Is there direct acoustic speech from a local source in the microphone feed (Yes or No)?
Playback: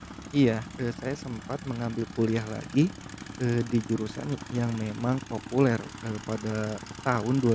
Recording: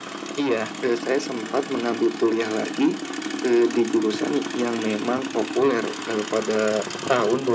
No